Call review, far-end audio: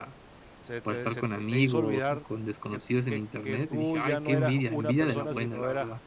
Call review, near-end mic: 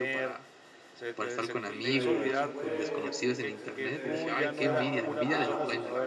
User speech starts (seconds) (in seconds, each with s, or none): 1.6 s